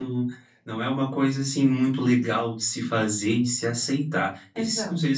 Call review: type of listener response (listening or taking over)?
listening